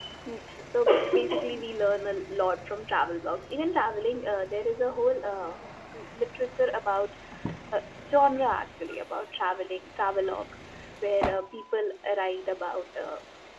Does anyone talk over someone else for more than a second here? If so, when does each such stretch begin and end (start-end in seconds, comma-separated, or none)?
none